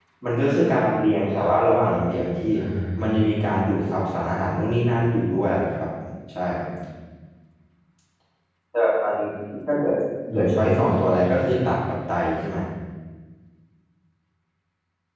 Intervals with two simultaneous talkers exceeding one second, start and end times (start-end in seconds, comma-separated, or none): 10.3-11.7